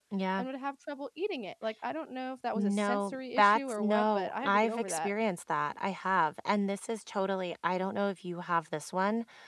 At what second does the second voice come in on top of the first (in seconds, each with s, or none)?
2.5 s